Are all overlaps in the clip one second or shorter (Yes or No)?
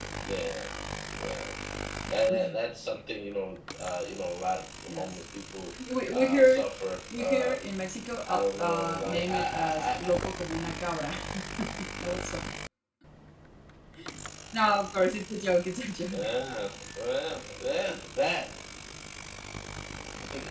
No